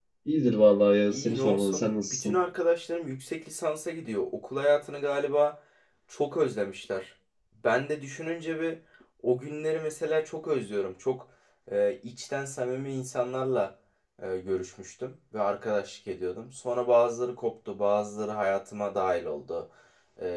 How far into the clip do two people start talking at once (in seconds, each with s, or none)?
1.1 s